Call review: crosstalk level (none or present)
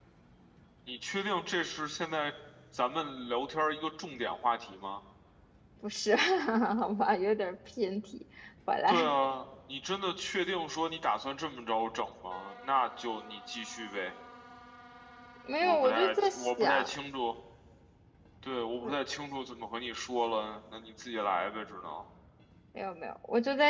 present